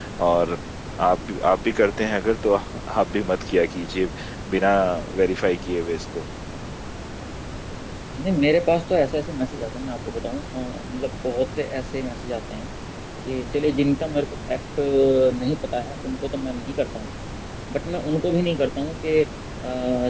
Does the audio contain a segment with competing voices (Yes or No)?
No